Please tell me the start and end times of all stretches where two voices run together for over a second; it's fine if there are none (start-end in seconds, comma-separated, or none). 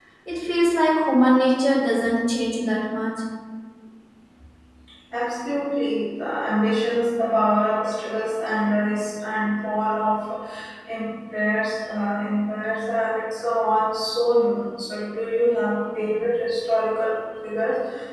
none